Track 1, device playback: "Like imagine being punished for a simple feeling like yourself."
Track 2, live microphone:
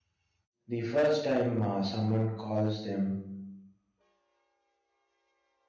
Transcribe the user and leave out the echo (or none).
the first time uh, someone calls them